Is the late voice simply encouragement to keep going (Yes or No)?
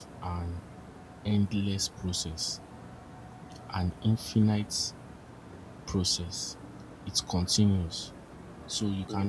Yes